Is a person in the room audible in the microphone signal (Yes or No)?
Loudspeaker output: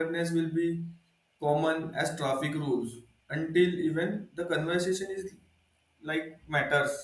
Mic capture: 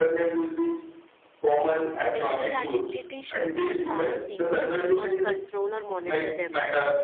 Yes